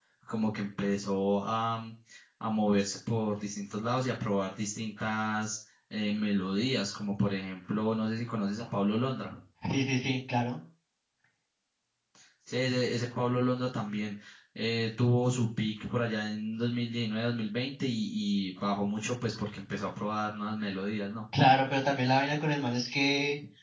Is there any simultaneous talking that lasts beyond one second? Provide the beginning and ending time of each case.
none

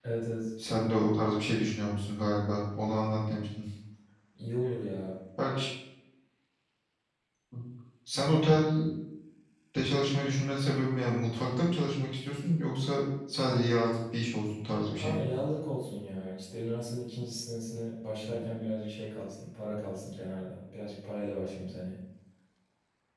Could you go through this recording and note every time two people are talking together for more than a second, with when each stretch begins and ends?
none

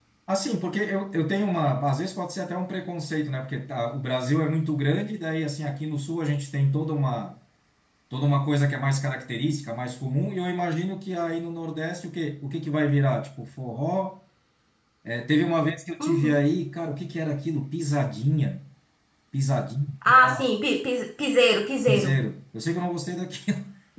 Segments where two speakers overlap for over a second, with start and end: none

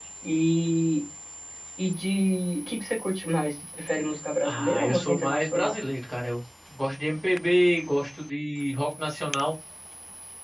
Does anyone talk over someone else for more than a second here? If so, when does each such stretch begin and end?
4.4-5.8

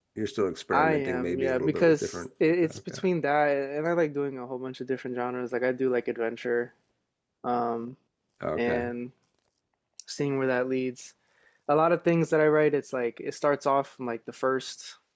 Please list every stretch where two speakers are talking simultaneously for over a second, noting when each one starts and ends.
0.7-2.2

